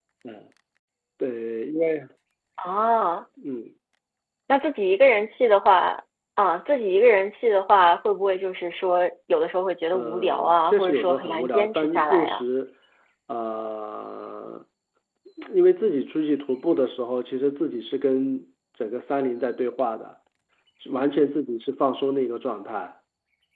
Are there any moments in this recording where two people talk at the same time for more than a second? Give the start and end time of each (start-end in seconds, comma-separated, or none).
9.9-12.4